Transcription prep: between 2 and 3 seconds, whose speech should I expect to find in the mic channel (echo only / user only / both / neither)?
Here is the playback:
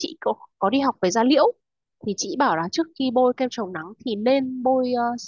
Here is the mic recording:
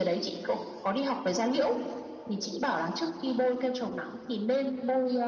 echo only